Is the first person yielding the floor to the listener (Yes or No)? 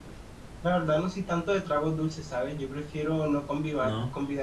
No